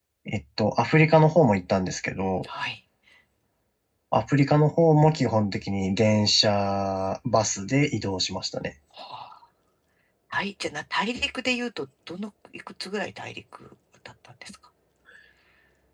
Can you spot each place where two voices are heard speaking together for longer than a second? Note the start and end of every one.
none

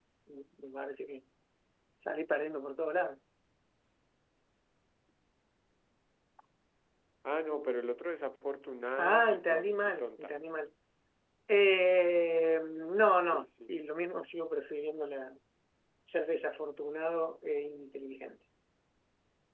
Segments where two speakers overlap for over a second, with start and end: 9.0-10.3

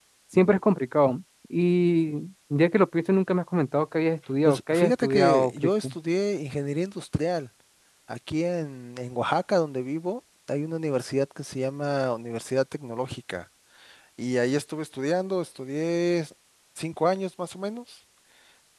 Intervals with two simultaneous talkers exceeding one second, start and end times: 4.5-5.9

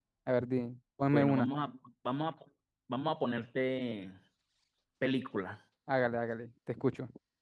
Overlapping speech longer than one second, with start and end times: none

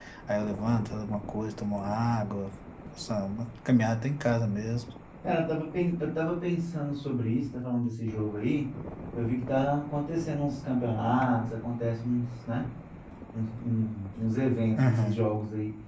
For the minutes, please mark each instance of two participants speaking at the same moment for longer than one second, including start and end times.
none

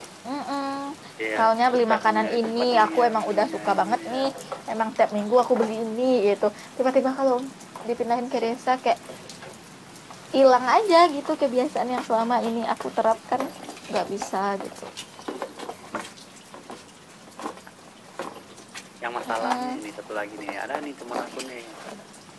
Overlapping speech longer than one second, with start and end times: 1.4-4.2

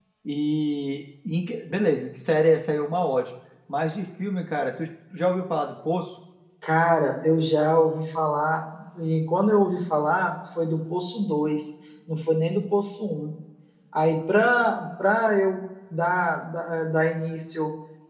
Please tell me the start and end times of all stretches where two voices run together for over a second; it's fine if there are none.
none

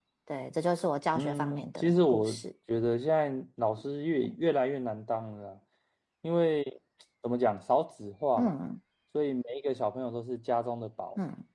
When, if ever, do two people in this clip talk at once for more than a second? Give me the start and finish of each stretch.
1.1-2.4

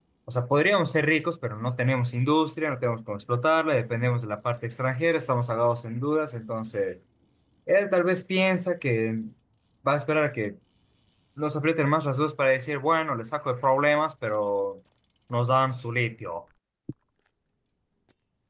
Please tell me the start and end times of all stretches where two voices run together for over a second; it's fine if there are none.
none

